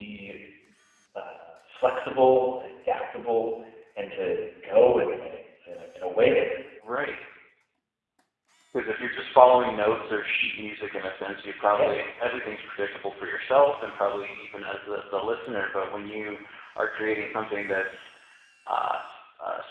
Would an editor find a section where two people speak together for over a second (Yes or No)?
No